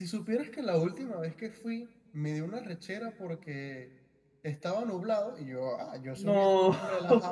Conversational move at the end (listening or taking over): listening